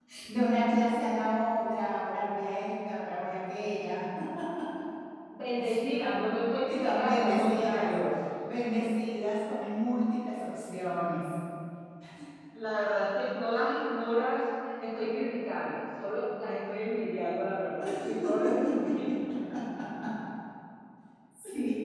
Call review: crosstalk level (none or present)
present